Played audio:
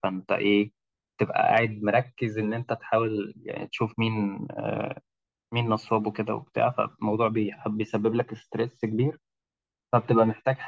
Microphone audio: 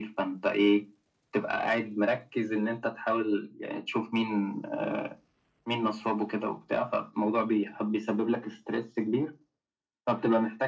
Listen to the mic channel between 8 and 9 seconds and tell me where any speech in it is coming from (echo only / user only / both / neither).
echo only